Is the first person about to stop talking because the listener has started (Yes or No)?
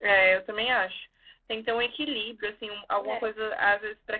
No